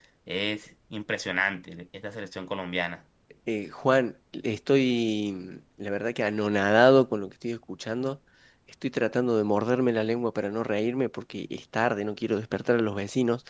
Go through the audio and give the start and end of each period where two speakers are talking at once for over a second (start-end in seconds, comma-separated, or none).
none